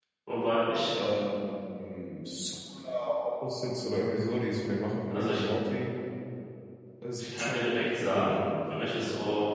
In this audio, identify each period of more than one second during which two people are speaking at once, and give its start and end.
7.2-8.4

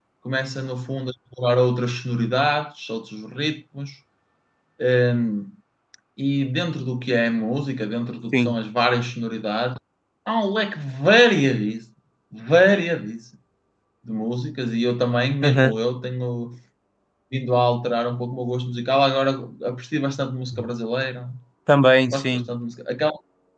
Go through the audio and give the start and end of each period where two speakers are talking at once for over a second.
none

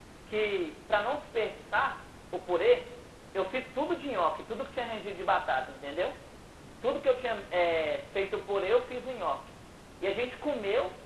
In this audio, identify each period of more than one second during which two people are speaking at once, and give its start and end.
none

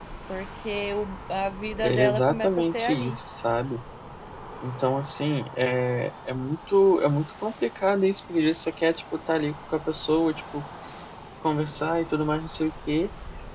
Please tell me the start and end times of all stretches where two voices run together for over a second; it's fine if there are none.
1.8-3.2

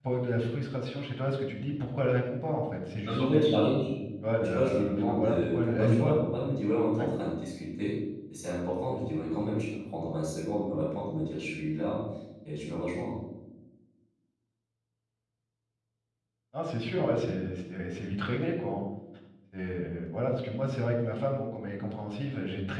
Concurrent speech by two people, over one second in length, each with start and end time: 4.4-6.2

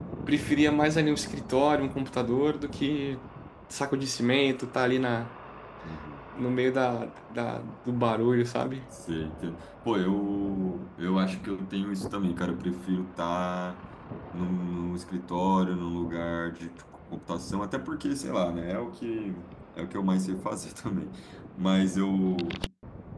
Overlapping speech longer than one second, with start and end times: none

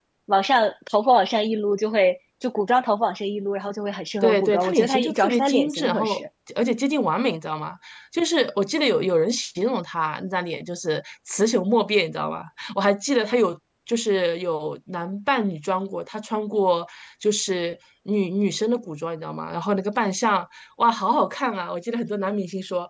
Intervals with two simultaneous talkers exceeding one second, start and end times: 4.2-6.2

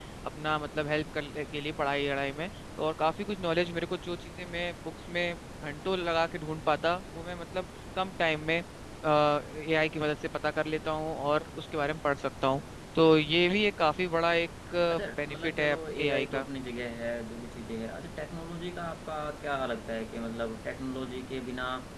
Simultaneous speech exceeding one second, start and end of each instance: 15.3-16.5

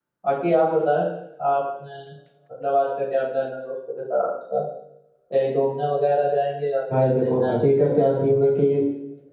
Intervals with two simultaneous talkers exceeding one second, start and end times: 6.9-8.6

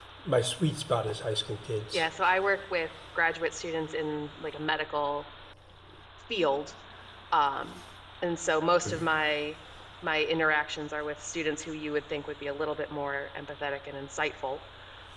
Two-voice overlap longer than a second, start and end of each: none

